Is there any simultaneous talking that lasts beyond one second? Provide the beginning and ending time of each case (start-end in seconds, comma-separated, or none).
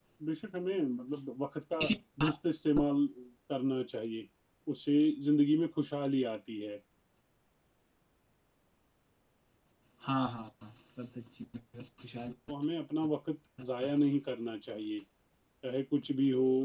none